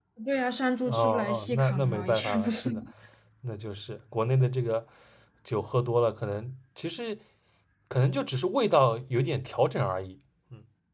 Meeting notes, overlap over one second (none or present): present